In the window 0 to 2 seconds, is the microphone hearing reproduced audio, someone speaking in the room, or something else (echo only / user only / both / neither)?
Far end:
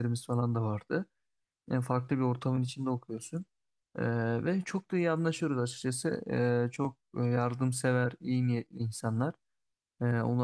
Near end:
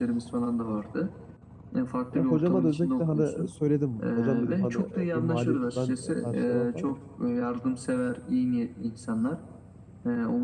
echo only